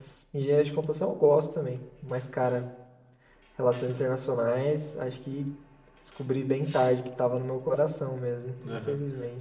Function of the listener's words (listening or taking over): taking over